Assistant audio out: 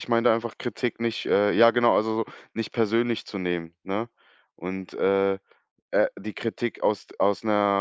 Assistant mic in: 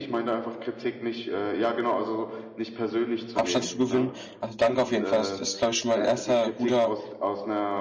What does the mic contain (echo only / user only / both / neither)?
both